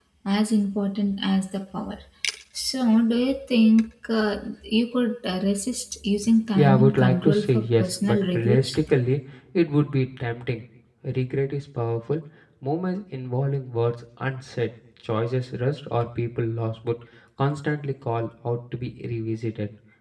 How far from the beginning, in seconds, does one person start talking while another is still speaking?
6.5 s

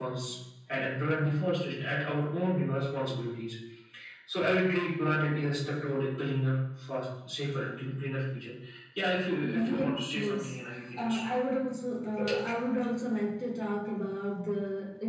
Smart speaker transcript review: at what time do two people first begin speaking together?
9.4 s

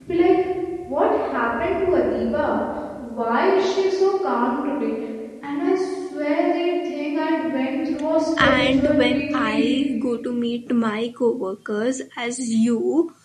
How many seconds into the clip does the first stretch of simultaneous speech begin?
8.4 s

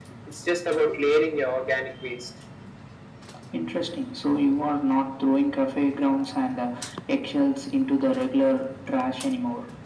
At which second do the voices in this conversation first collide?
none

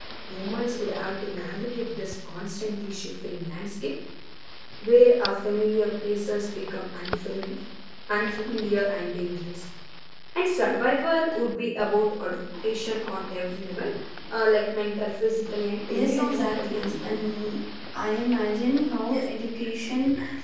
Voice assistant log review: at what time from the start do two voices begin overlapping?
15.9 s

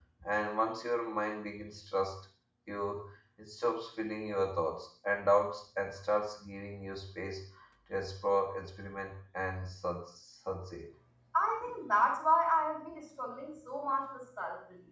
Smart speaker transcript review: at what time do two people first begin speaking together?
none

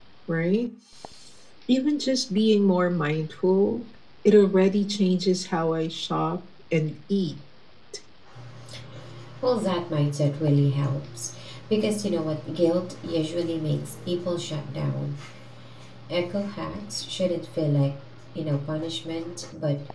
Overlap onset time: none

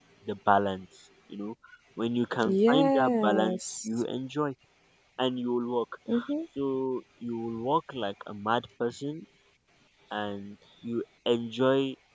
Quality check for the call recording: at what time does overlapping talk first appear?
2.4 s

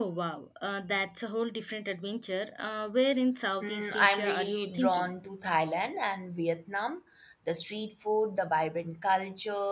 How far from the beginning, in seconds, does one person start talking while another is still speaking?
3.6 s

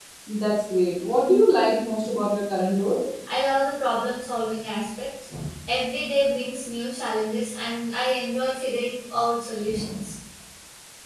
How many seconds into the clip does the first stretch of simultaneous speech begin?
none

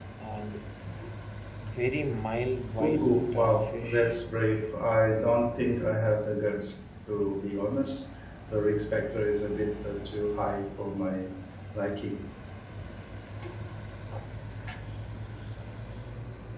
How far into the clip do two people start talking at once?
2.8 s

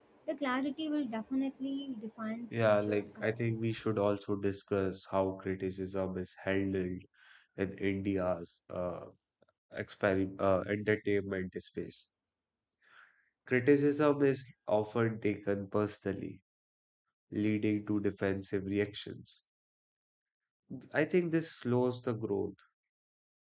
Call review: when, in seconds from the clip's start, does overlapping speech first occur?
2.5 s

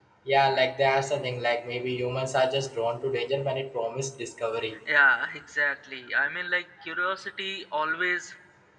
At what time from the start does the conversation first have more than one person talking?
none

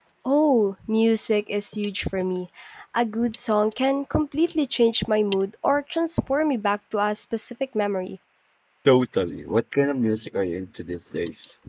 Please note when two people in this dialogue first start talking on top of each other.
none

